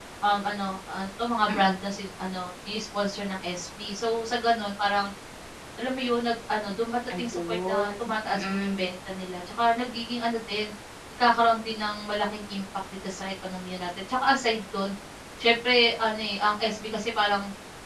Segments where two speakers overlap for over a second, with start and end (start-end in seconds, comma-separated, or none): 7.2-8.9